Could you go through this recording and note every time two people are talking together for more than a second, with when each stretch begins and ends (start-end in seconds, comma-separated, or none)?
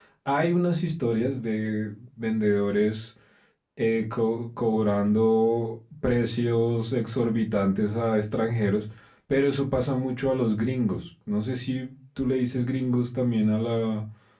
none